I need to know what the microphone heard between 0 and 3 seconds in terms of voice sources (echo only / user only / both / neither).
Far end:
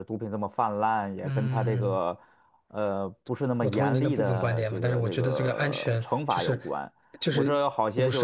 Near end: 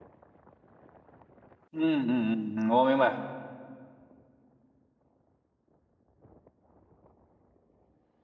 user only